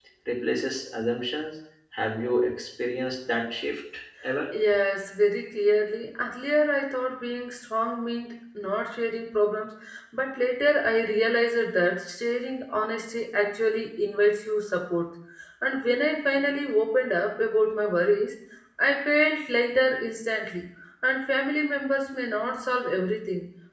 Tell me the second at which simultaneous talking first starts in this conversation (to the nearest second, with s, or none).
none